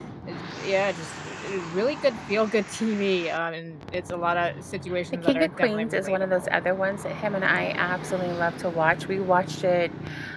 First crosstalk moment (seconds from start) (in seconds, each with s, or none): 5.2 s